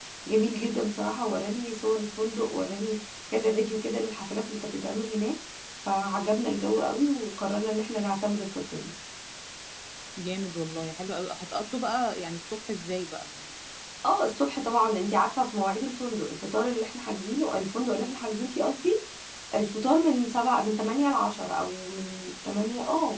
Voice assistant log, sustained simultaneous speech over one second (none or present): none